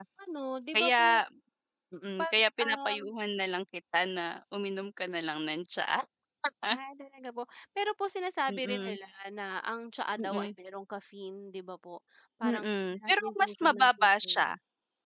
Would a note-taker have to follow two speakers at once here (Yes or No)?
Yes